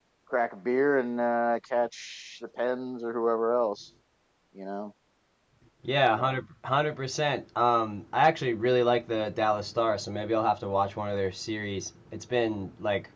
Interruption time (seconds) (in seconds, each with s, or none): none